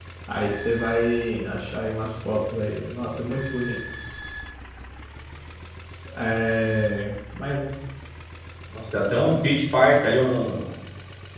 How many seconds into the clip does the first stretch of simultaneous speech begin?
none

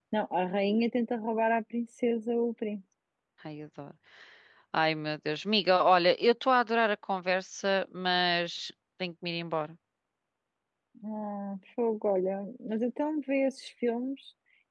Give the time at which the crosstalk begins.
none

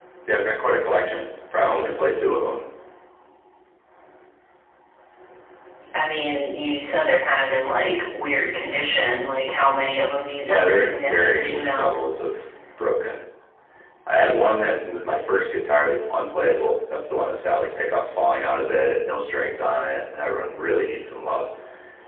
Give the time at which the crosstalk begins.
10.4 s

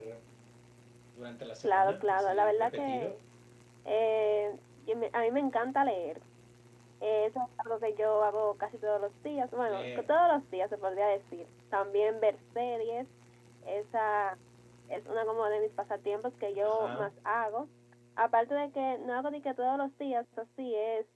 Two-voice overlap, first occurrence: 1.6 s

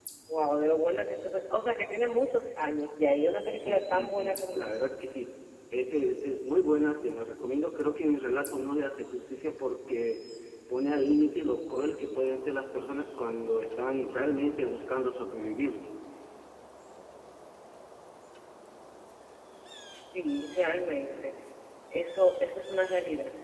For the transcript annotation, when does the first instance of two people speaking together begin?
3.5 s

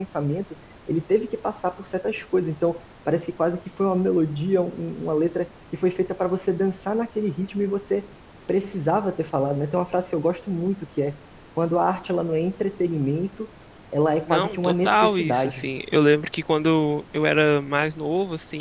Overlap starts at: 14.3 s

